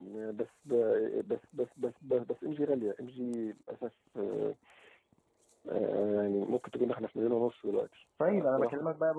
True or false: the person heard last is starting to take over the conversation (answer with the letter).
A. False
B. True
B